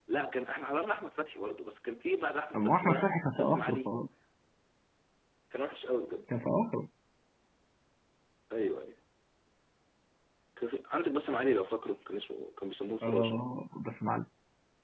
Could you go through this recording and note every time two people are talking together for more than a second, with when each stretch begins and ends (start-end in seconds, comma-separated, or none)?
2.5-3.9